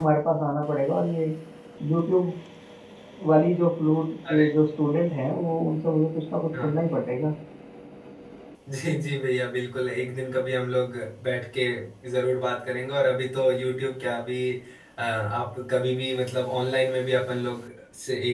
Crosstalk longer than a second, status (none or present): none